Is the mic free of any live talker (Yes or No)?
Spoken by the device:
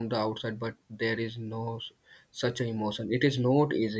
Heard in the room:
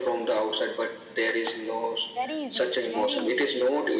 No